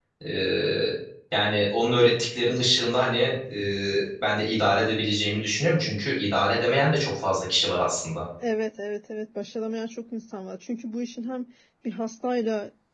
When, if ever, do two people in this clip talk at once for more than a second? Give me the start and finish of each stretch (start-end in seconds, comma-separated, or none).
none